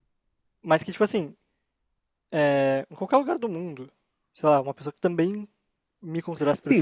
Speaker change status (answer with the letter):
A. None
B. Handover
B